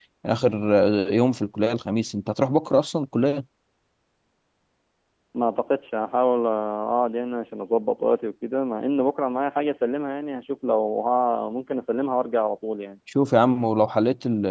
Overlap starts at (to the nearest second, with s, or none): none